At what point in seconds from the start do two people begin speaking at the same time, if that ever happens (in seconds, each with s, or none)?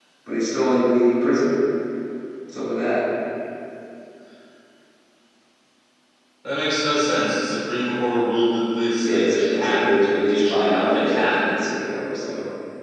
9.0 s